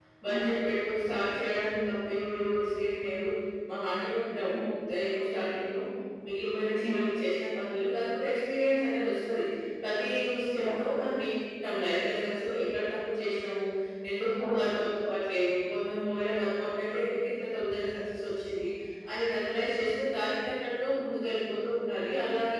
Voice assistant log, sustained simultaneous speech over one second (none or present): none